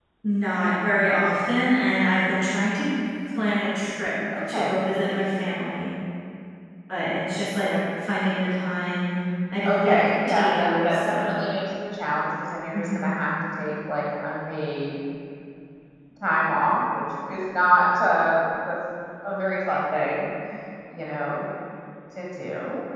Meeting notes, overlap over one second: present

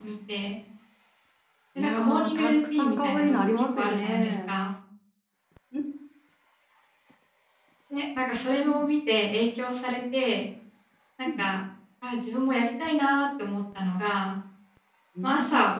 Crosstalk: present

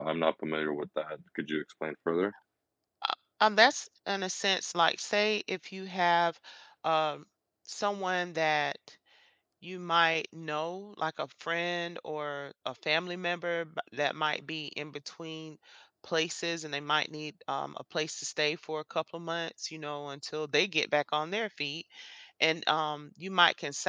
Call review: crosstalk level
none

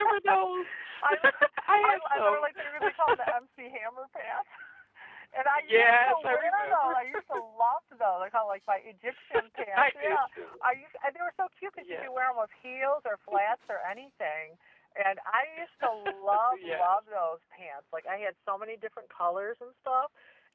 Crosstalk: present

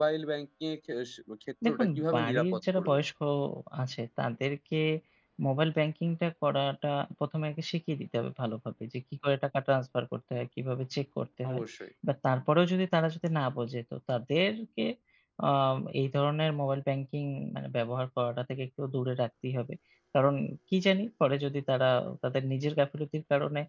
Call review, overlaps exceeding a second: present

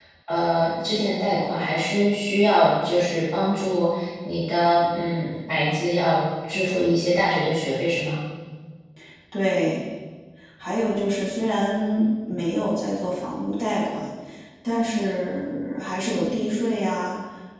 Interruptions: none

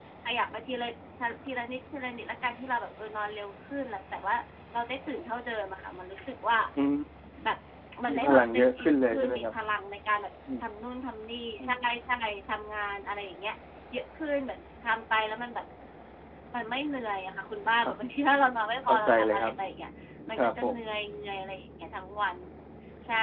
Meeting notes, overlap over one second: present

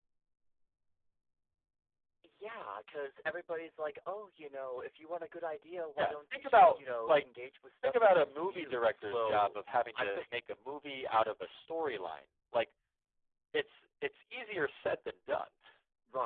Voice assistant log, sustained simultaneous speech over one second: present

